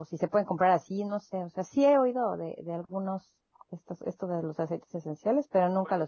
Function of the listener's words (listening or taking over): taking over